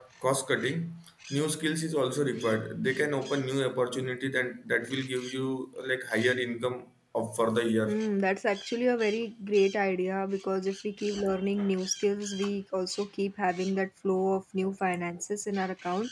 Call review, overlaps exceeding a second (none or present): none